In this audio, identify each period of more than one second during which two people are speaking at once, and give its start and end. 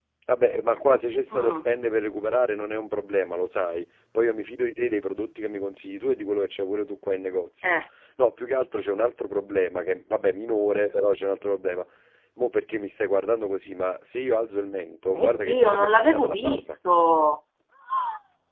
15.1-16.8

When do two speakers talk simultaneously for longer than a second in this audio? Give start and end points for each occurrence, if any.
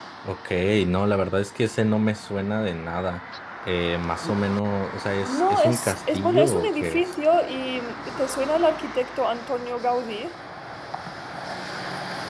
5.2-7.1

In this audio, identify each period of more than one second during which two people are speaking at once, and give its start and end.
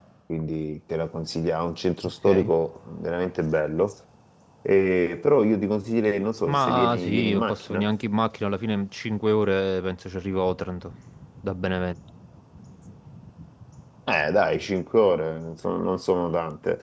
6.5-7.8

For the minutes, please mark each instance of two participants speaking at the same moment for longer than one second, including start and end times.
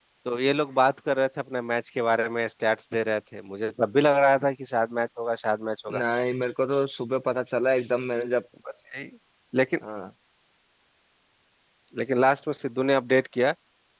none

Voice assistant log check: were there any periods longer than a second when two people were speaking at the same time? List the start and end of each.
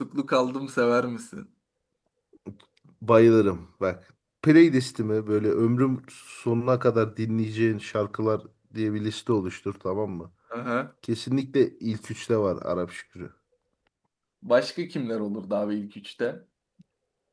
none

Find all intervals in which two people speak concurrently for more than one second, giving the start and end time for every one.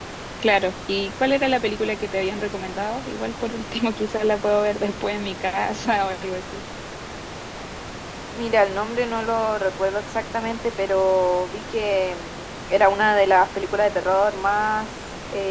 none

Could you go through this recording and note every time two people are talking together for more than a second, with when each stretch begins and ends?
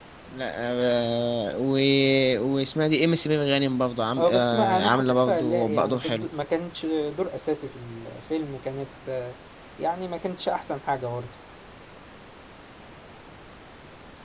4.2-6.2

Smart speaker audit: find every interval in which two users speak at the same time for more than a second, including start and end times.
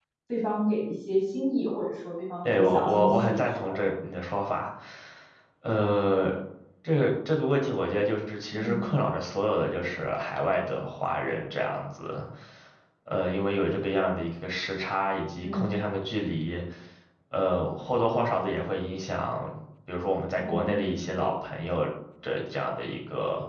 2.4-3.7

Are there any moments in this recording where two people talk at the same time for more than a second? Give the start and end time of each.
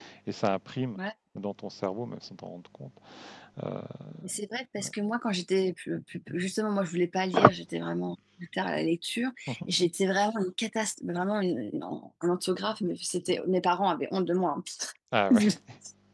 none

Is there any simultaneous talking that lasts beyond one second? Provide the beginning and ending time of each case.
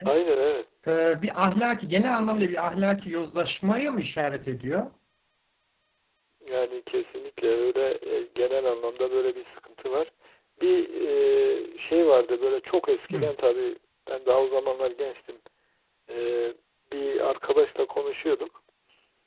none

